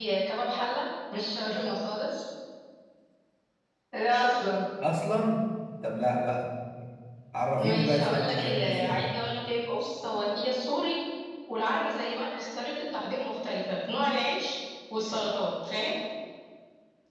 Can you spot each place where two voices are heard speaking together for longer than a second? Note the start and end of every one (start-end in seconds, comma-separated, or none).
7.6-9.1